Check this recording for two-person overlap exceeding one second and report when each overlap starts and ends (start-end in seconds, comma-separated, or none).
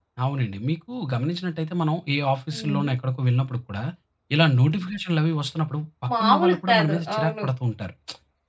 6.2-7.4